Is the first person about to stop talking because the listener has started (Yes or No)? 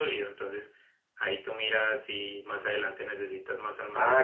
Yes